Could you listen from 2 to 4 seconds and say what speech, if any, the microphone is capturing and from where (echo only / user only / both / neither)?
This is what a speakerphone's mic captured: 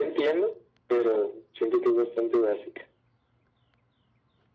echo only